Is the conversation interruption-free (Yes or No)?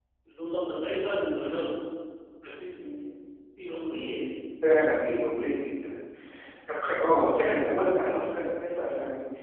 Yes